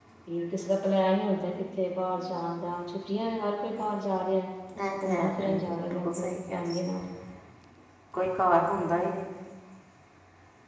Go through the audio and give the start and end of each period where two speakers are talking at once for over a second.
5.0-6.9

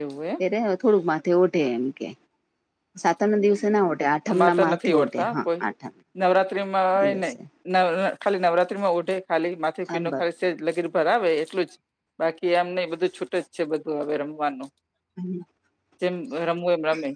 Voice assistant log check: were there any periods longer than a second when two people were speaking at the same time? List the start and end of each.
4.3-5.6

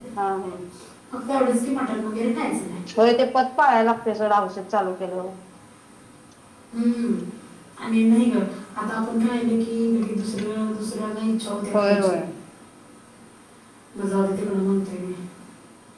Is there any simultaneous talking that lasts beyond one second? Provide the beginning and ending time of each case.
none

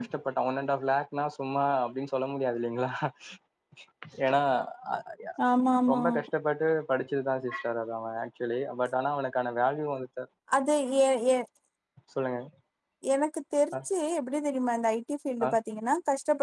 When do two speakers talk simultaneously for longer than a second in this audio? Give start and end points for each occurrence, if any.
none

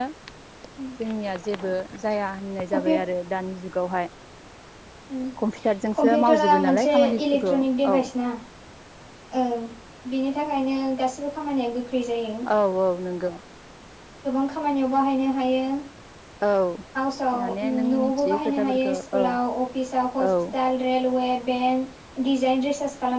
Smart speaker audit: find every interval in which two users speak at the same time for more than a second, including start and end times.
6.0-7.5, 17.4-19.2

